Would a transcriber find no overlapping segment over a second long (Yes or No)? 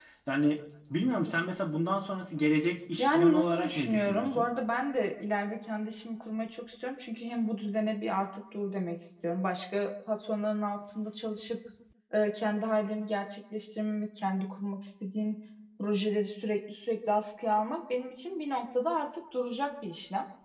No